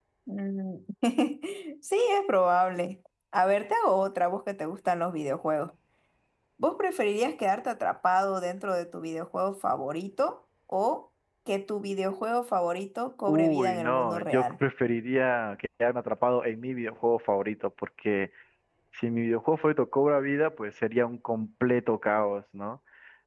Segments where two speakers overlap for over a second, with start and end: 13.3-14.5

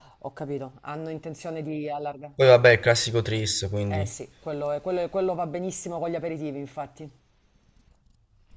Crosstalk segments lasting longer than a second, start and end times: none

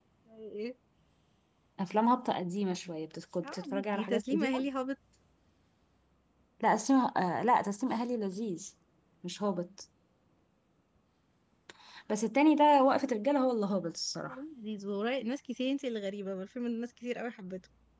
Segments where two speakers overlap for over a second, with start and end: 3.4-4.7

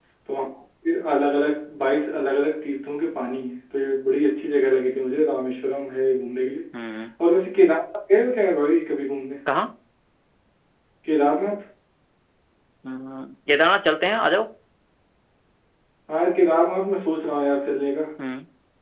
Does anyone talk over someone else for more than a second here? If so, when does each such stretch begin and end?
none

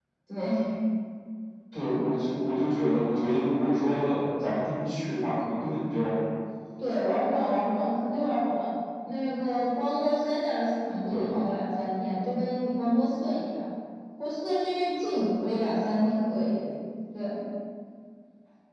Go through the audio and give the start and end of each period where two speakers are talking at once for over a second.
none

